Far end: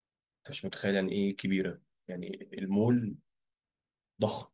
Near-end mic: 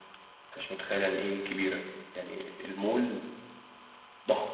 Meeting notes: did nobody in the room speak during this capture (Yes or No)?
Yes